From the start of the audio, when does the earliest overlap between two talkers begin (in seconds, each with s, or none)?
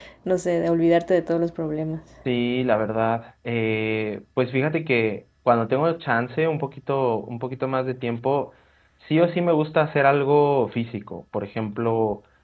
none